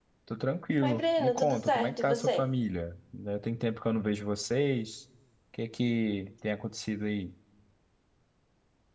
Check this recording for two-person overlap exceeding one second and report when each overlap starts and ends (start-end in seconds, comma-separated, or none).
0.8-2.4